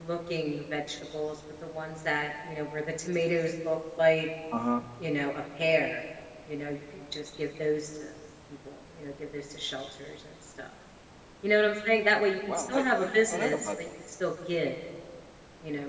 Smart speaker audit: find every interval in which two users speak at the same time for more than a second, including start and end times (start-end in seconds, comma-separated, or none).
12.5-13.7